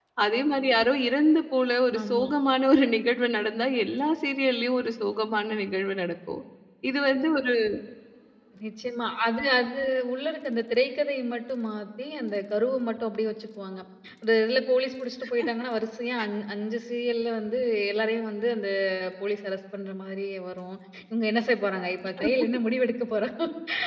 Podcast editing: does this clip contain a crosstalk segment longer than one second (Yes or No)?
No